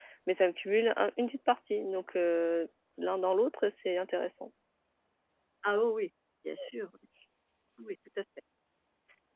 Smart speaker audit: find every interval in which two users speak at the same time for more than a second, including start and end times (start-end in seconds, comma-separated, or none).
none